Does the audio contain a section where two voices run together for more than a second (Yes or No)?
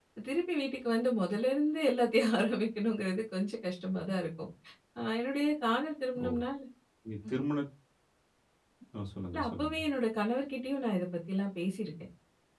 No